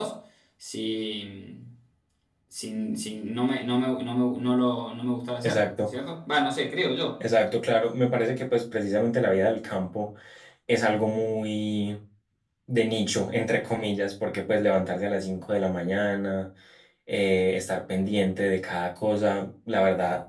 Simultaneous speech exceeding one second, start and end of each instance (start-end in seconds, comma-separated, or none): none